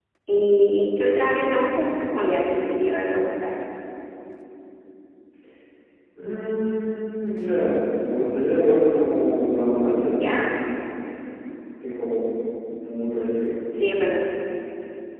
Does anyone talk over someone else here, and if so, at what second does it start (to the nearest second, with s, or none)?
none